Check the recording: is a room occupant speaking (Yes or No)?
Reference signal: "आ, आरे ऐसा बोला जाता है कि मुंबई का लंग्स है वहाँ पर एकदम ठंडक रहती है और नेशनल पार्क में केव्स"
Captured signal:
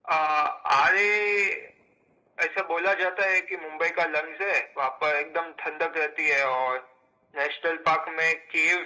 No